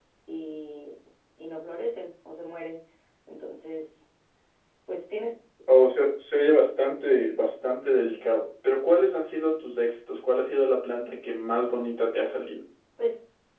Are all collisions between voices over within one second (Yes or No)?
Yes